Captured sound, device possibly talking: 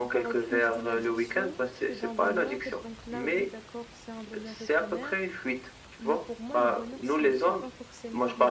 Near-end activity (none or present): present